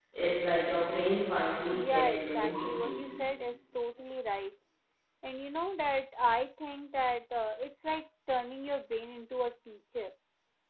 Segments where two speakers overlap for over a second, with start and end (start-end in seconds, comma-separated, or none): 1.7-3.0